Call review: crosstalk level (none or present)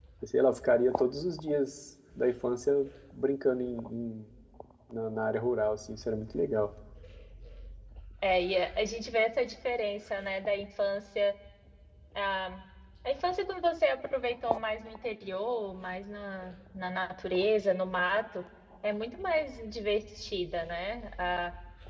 none